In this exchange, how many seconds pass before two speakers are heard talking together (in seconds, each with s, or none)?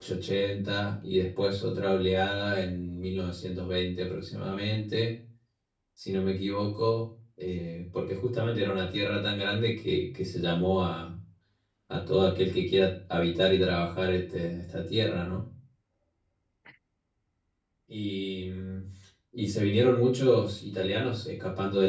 none